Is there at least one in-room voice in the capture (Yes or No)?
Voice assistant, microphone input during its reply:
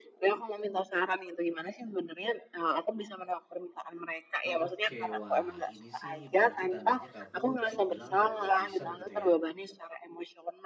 Yes